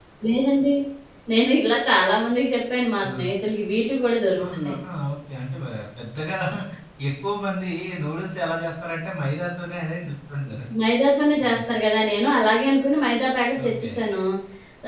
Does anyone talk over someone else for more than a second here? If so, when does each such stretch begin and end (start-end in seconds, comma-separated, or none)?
none